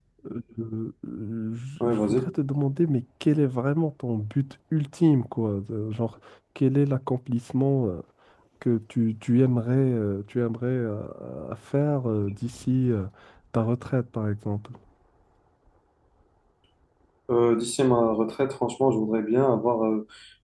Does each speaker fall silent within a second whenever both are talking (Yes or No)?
Yes